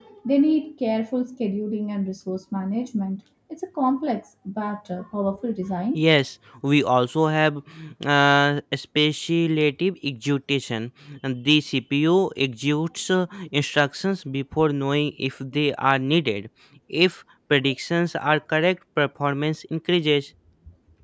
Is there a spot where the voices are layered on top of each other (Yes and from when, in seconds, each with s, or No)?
No